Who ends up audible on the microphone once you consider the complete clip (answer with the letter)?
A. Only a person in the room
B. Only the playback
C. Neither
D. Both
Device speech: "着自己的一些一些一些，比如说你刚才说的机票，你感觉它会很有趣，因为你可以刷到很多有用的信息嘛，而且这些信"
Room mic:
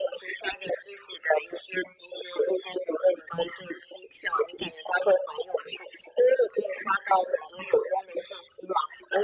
B